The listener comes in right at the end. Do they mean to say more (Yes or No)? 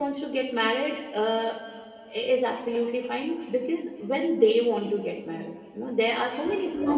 No